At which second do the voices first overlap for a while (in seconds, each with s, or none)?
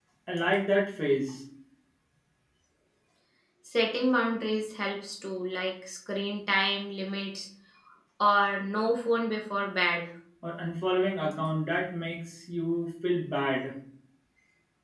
none